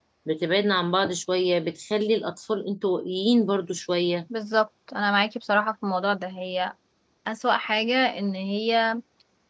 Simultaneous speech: No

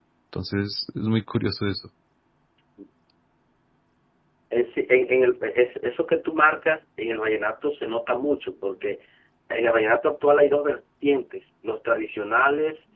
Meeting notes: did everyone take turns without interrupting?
Yes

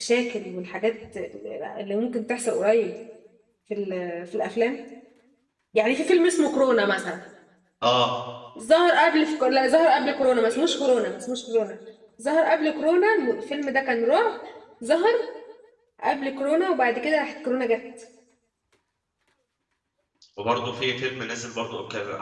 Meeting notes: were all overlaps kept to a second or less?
Yes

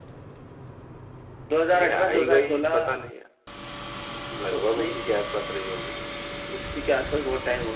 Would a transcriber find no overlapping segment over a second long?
No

